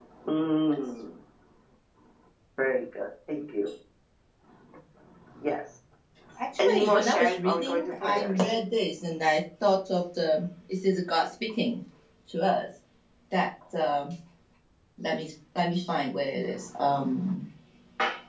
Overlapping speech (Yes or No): Yes